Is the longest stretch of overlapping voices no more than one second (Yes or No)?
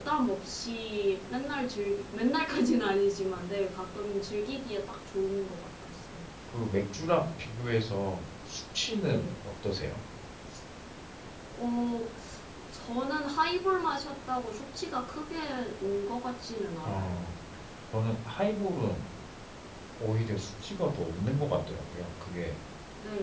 Yes